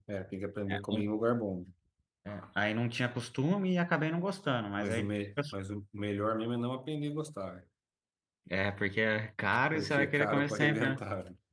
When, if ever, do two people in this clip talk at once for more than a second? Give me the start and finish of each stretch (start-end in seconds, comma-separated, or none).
9.7-11.0